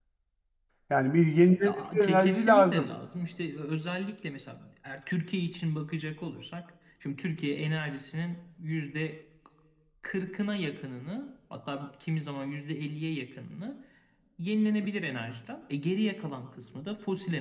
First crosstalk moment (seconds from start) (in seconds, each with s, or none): 1.6 s